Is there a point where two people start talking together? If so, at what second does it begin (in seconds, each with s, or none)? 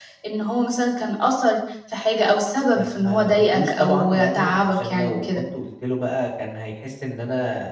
2.8 s